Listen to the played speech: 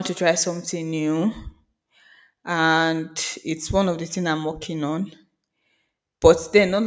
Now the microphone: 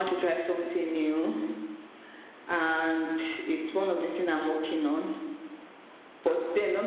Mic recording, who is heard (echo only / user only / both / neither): echo only